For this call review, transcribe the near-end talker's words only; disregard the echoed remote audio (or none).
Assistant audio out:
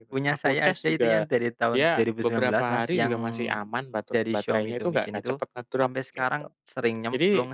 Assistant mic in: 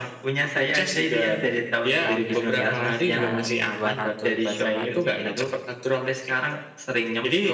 Oh, iya. Yang sekitar Rp200.000, Rp100.000, gitu.